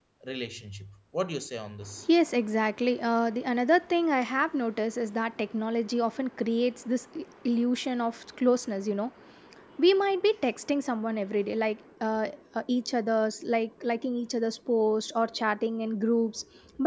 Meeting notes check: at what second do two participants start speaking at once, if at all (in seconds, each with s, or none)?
none